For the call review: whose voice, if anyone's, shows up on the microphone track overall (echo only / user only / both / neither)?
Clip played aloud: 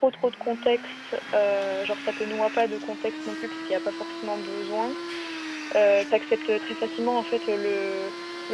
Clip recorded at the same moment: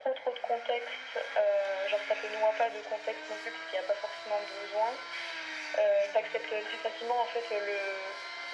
echo only